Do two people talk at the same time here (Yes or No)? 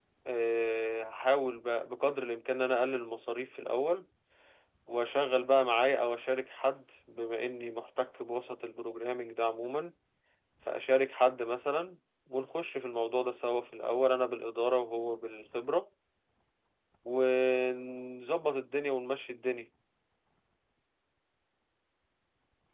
No